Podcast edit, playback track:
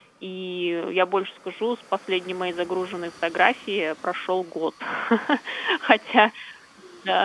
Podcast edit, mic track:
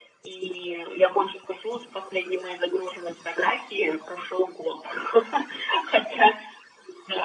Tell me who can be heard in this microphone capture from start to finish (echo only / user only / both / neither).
echo only